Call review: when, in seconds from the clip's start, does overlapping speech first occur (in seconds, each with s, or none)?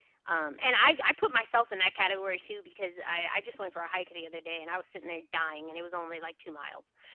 none